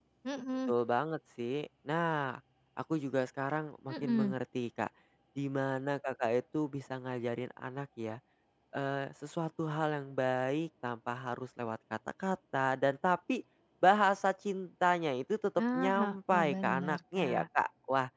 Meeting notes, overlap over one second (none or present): present